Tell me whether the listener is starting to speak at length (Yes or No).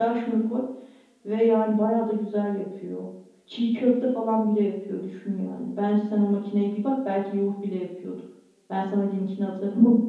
No